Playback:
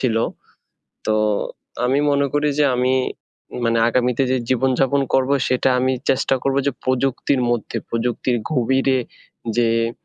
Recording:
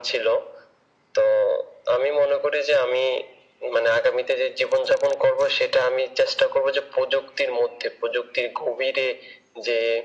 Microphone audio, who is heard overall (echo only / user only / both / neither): echo only